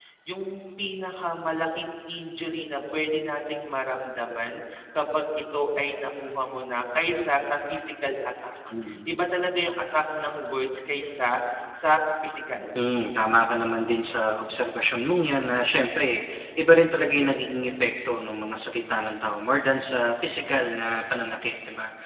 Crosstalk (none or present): none